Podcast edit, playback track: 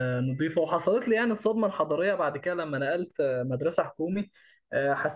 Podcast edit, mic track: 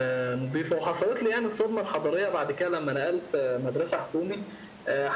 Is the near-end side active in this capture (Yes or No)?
No